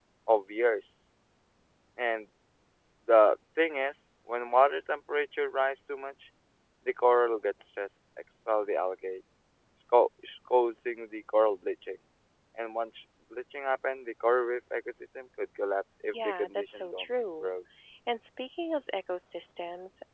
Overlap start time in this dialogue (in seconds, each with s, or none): 16.0 s